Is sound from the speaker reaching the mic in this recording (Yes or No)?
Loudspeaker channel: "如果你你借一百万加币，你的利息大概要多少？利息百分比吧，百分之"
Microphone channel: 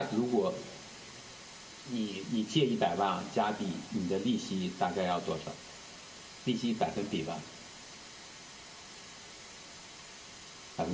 Yes